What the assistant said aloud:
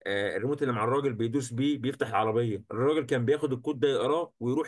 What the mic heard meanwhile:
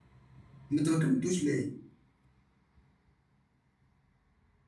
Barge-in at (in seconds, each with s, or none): 0.7 s